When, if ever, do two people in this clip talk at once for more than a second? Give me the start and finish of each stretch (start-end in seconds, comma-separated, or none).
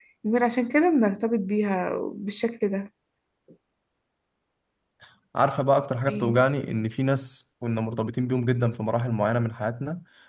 none